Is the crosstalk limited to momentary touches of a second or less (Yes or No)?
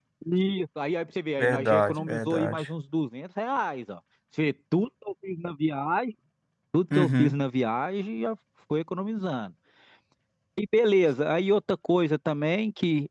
No